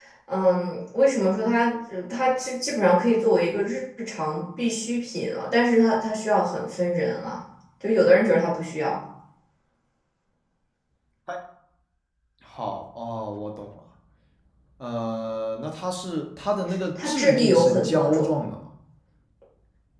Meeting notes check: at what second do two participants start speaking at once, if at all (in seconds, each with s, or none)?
17.0 s